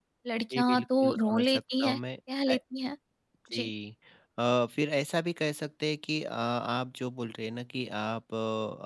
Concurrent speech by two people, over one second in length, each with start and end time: 0.5-2.0

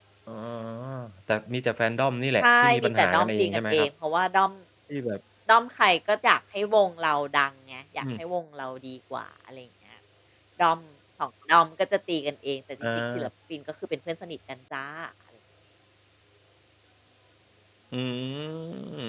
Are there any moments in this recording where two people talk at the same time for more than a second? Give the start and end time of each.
2.4-3.9

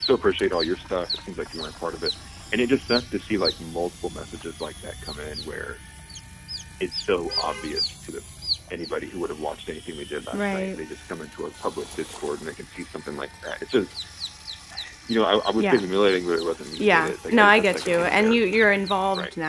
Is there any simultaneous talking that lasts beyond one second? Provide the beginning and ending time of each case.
16.8-18.6

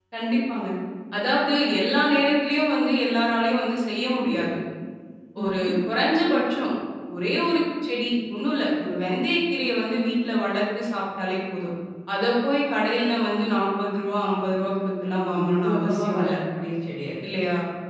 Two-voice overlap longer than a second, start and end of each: 15.1-16.3

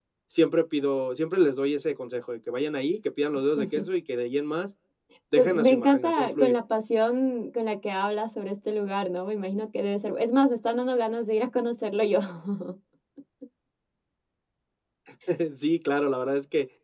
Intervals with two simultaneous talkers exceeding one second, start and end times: 5.4-6.6

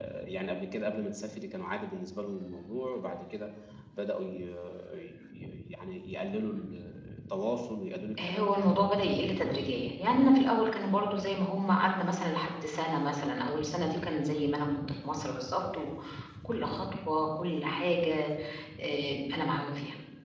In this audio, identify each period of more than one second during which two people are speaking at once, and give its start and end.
none

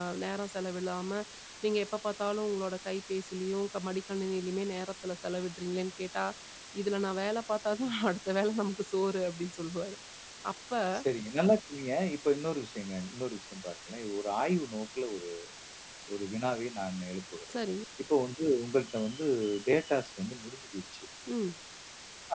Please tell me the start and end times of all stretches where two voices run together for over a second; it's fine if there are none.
none

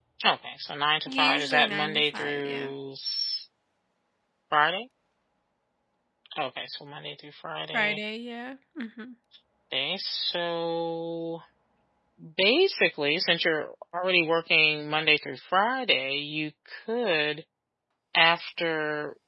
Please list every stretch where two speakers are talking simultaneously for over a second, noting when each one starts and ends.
1.1-2.7

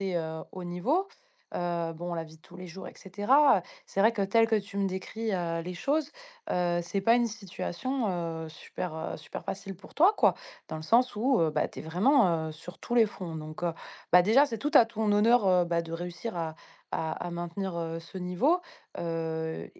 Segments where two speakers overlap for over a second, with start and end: none

